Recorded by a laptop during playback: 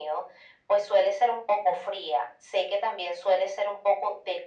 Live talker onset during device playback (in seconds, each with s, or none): none